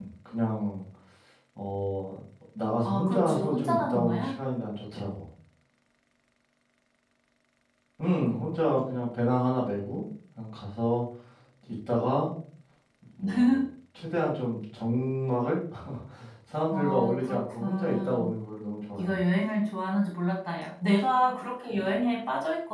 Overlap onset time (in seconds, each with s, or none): 2.9 s